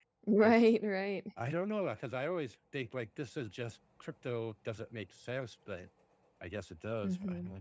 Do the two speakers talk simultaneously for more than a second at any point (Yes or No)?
No